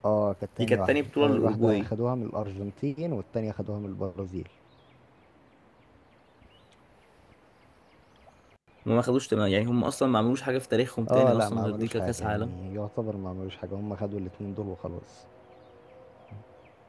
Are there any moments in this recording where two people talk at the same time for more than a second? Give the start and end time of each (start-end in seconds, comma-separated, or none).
0.6-1.9, 11.1-12.5